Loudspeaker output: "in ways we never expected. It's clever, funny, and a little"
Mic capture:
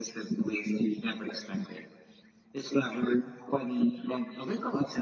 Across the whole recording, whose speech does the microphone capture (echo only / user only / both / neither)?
echo only